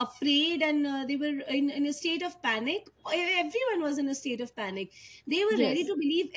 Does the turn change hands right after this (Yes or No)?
No